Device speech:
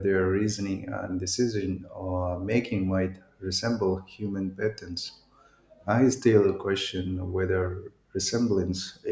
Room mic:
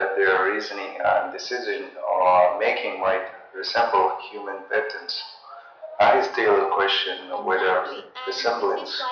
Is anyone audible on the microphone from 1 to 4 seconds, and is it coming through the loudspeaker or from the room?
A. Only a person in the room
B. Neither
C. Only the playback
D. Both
C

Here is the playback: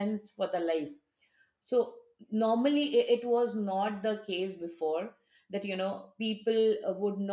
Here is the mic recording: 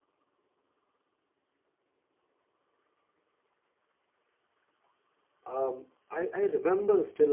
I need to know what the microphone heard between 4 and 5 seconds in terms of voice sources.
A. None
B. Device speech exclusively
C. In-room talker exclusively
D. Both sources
A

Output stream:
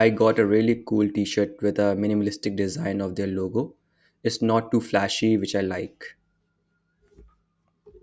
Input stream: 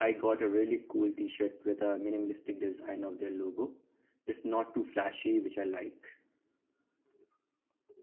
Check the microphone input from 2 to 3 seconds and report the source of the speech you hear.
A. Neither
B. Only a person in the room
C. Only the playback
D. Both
C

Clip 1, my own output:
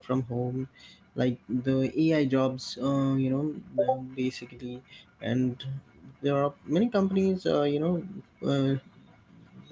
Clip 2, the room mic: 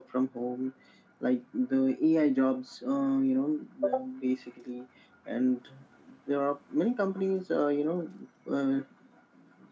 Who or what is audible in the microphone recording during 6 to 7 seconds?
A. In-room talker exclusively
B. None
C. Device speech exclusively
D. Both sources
C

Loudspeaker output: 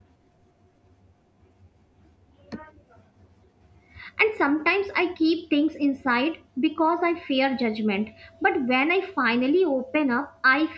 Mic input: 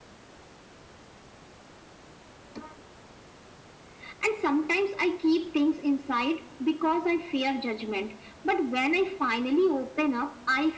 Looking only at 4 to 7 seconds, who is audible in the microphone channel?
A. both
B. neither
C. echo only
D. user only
C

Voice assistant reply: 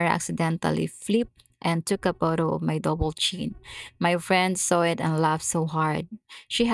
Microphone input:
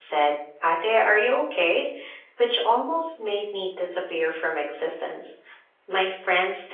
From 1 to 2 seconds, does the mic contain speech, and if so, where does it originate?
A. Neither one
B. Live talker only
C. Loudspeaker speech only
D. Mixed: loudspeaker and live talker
B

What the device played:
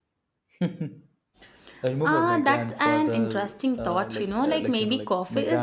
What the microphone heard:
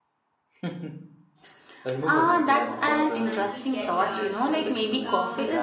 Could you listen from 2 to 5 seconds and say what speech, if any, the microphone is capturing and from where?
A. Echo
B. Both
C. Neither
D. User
B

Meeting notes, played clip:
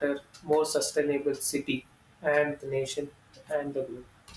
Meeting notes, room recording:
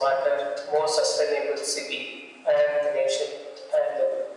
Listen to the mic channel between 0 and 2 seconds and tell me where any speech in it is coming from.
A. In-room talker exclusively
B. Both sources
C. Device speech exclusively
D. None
C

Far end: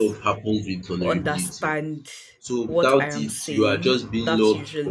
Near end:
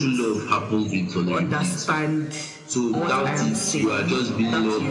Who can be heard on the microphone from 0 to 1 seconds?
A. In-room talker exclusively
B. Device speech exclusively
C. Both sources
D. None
B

